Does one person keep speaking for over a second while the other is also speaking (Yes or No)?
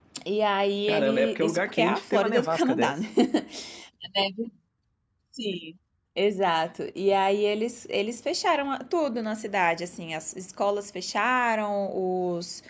Yes